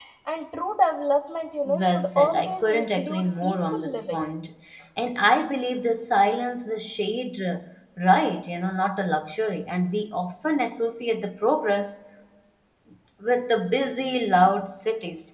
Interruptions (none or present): present